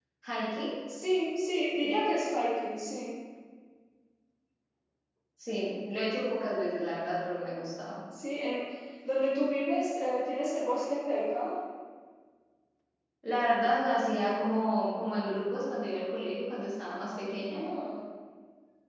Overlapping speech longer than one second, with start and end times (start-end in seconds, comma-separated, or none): none